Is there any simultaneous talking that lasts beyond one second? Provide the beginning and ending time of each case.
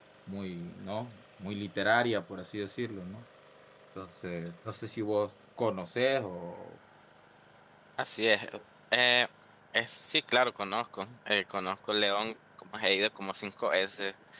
none

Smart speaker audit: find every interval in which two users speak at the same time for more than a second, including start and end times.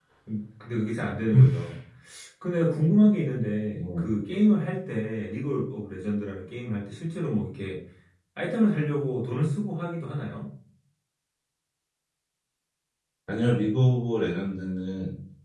none

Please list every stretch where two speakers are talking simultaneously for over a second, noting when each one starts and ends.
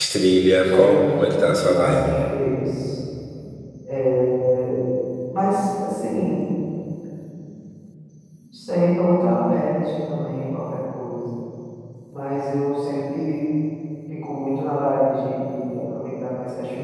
0.6-2.2

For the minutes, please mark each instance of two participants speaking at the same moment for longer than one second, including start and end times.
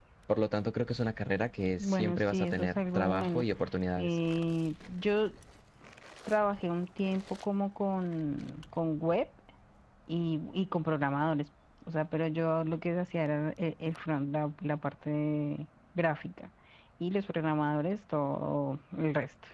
1.8-3.4

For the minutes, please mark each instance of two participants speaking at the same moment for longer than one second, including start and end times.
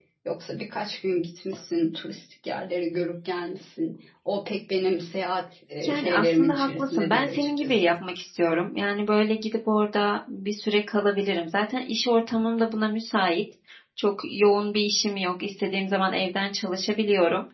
5.9-7.9

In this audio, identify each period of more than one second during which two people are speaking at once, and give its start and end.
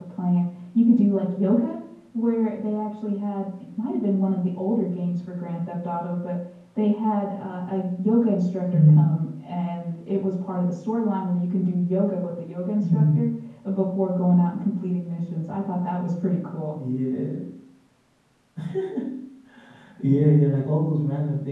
none

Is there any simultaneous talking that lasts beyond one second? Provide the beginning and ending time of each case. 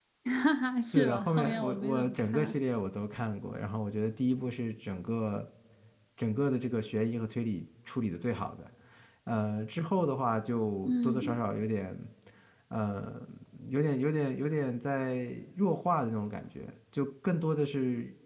0.9-2.6

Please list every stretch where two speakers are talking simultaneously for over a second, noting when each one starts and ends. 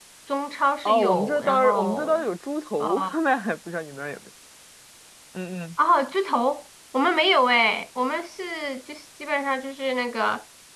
0.8-2.2

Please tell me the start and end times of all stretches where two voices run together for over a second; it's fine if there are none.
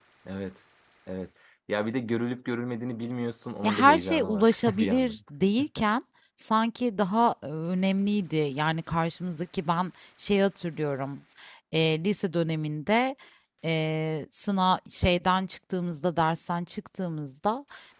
3.6-5.2

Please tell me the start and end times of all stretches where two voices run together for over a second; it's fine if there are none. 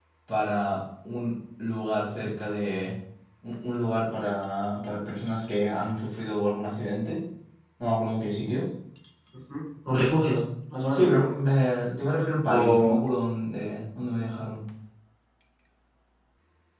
none

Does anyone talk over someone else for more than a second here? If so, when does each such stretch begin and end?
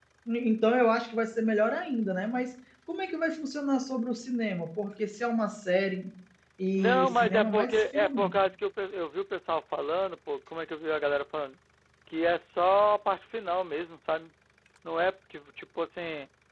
6.8-8.3

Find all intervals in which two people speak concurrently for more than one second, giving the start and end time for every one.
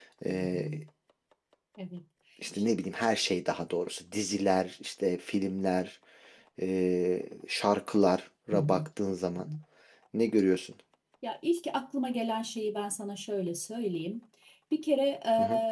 none

